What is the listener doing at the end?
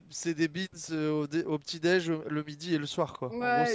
taking over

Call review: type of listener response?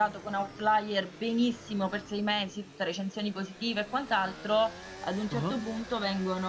listening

